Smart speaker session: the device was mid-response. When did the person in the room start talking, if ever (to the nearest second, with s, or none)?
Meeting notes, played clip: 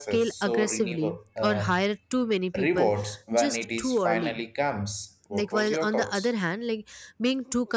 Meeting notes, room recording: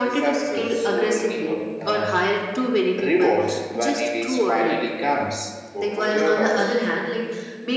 none